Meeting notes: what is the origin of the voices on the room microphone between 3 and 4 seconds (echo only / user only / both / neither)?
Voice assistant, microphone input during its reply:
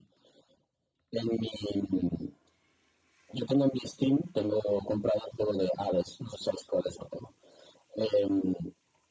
echo only